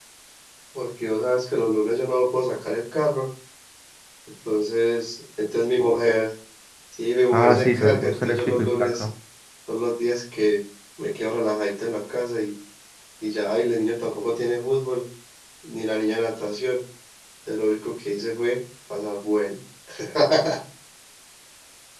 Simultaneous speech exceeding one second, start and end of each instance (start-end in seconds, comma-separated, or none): 7.3-9.0